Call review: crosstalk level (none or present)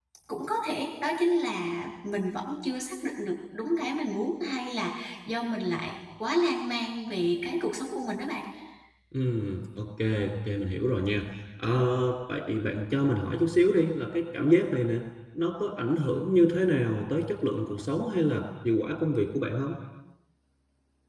none